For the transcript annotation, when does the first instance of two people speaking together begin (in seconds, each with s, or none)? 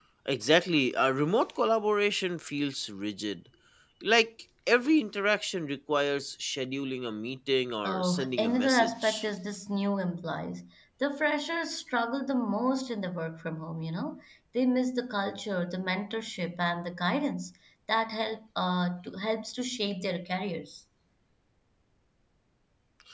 7.8 s